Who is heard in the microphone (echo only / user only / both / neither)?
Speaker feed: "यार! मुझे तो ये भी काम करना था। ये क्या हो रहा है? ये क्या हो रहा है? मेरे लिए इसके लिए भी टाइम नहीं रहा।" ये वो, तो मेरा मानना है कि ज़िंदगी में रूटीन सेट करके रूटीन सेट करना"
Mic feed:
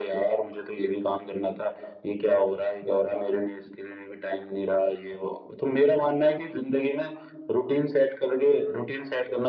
echo only